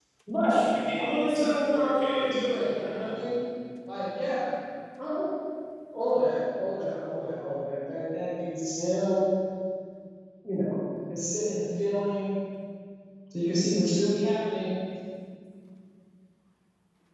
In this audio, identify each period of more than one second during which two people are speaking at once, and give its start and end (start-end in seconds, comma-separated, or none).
1.0-3.4